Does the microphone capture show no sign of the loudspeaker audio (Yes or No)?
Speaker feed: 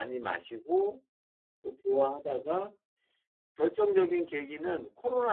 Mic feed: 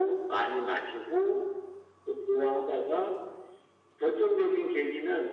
No